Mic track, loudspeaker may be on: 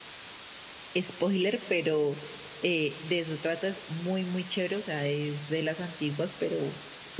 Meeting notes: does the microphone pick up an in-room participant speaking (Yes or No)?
Yes